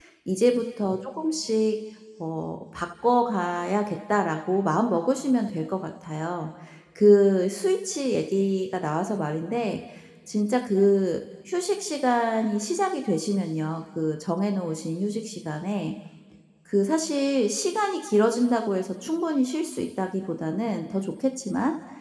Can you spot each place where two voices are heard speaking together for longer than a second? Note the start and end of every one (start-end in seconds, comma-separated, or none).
none